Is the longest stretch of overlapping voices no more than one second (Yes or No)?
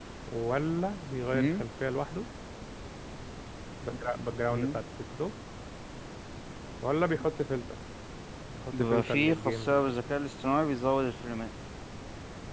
No